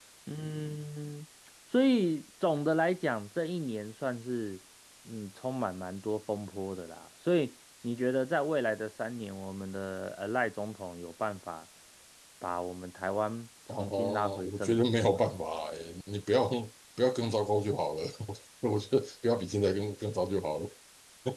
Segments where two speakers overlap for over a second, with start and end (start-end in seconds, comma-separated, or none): 13.8-15.2